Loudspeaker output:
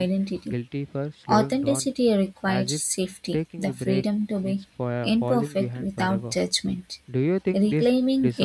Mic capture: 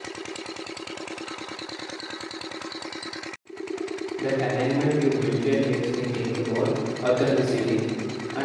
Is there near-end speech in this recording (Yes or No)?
Yes